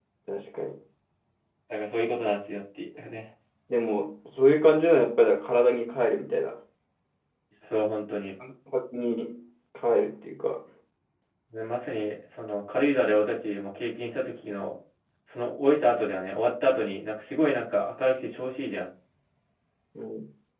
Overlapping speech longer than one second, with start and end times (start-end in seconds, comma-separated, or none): none